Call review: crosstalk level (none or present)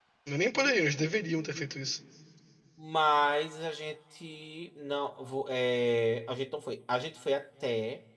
none